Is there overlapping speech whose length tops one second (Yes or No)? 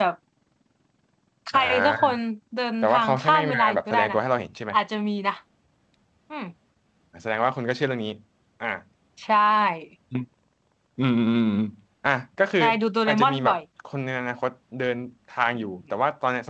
Yes